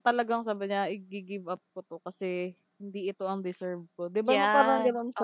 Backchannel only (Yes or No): No